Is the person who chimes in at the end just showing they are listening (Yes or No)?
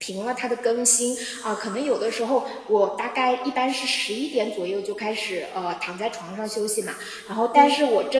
Yes